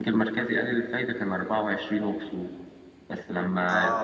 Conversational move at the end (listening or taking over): listening